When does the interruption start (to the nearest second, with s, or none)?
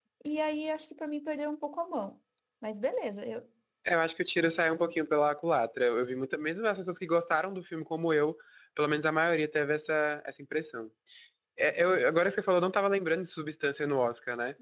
none